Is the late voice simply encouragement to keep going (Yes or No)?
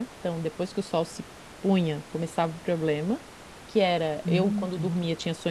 Yes